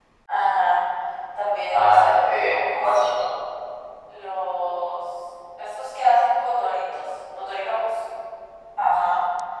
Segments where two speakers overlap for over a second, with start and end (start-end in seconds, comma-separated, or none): 1.7-3.0